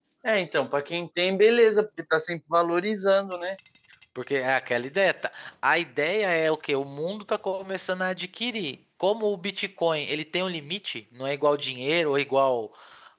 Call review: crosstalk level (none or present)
none